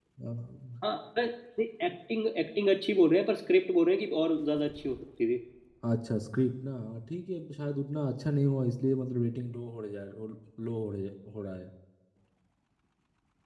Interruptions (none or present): none